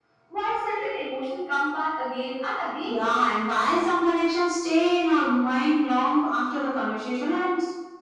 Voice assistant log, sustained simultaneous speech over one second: none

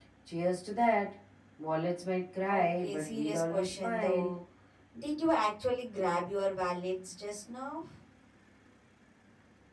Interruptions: present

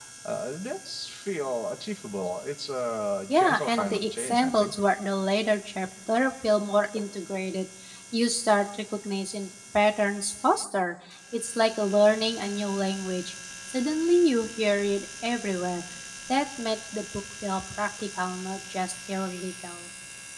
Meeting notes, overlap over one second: present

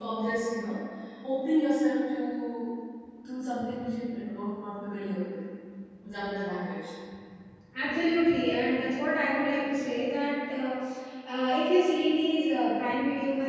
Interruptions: none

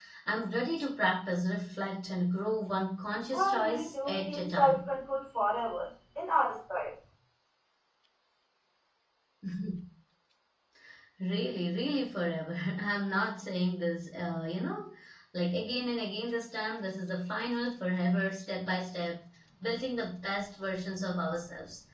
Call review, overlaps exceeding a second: present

